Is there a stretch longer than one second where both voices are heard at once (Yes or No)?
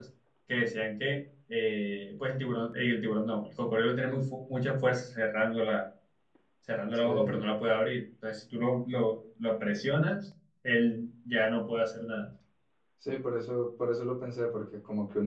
No